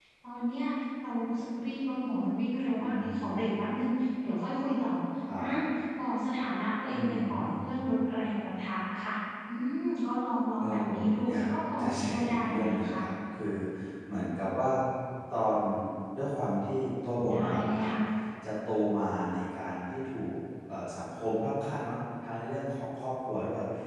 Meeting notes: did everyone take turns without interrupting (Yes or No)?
No